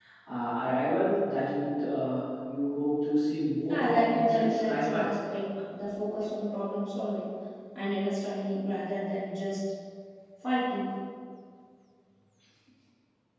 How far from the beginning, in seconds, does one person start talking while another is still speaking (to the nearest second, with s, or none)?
4 s